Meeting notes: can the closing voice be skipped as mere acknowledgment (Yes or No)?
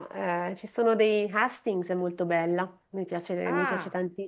Yes